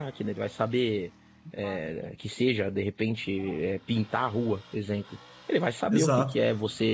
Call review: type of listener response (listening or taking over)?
listening